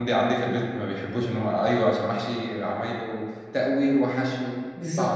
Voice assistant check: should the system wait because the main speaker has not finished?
No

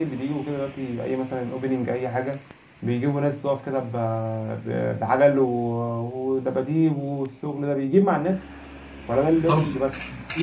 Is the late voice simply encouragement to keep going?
No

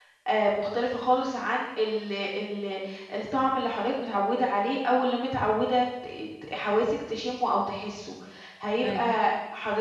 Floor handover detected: No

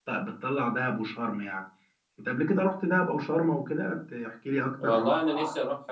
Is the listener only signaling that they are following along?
No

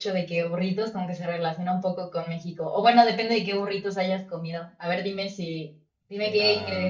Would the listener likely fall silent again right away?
Yes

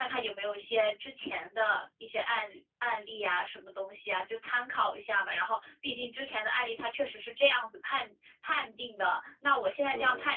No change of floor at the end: Yes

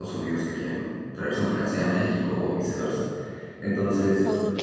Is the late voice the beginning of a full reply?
No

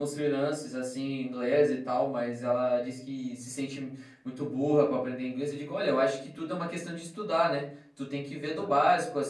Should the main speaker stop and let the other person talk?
No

